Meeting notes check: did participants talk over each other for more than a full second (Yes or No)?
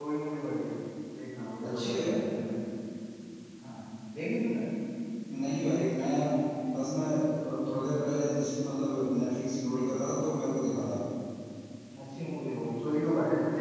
No